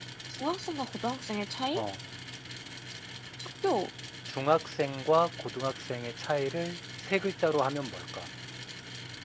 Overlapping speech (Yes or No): No